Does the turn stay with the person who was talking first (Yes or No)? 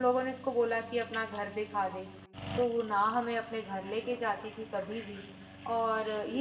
Yes